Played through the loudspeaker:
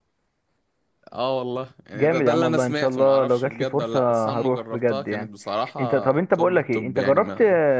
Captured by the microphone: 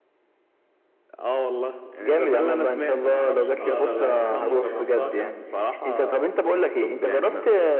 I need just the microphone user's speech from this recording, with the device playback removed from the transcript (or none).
اه يا بقت فظيعة بصراحة